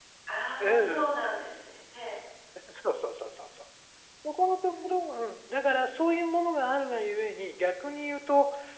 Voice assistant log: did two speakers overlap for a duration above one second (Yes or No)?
No